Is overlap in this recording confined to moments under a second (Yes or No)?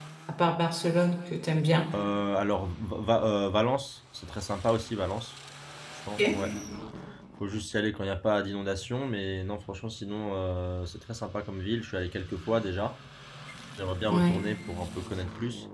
Yes